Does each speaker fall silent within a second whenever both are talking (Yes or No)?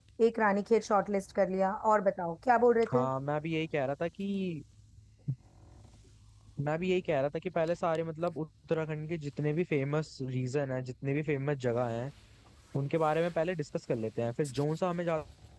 Yes